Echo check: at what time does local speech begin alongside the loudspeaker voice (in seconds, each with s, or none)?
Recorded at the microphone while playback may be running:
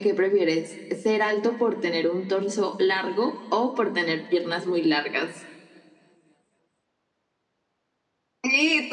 none